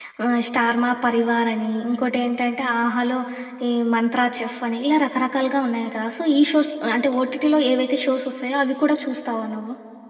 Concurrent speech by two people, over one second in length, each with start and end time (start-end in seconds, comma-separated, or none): none